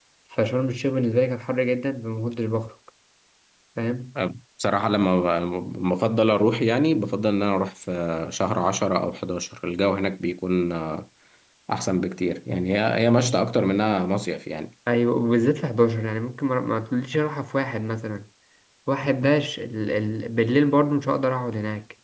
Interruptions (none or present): none